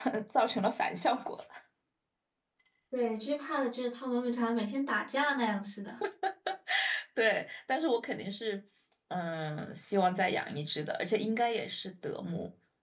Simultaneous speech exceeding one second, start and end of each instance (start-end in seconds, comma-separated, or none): none